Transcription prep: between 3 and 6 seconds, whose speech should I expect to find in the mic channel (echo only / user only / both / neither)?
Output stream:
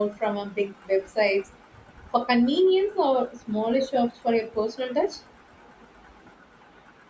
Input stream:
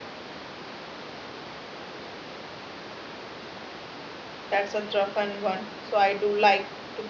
user only